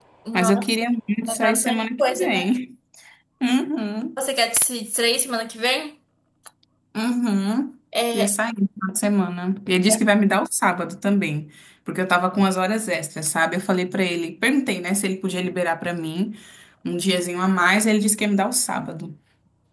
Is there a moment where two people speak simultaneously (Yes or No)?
Yes